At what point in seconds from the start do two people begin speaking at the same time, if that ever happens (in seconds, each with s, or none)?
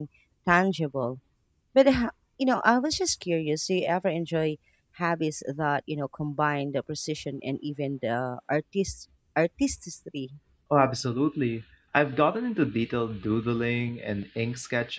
none